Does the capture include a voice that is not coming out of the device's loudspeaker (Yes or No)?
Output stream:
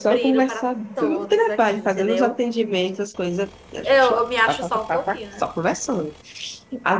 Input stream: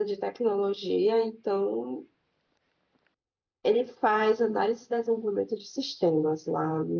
Yes